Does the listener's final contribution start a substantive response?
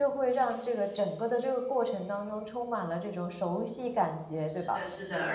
Yes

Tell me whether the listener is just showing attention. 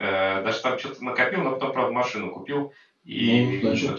No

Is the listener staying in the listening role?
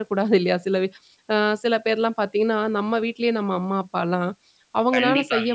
Yes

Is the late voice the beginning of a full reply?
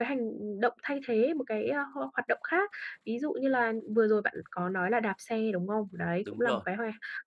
No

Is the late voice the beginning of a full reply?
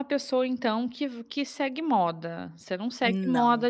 No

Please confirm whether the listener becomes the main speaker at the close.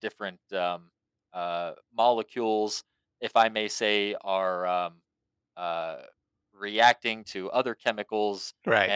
No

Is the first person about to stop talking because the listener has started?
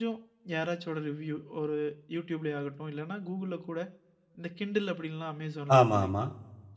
No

